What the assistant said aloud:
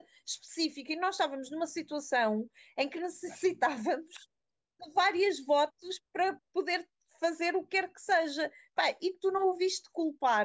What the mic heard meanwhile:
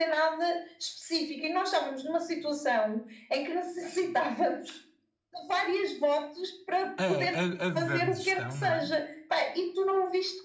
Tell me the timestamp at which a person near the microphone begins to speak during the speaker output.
7 s

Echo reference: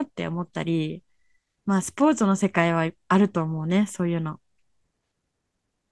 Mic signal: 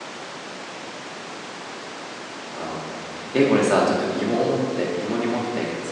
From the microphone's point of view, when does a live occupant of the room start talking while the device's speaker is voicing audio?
3 s

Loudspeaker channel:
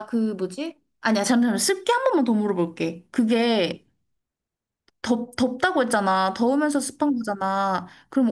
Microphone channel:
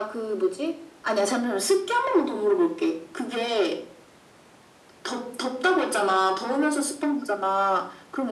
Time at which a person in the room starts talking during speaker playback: none

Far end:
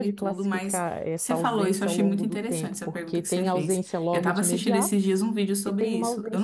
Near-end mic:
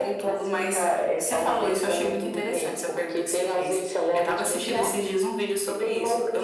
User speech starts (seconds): none

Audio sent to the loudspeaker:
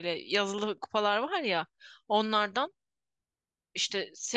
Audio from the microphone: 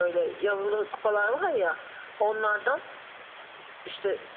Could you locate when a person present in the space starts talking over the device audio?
none

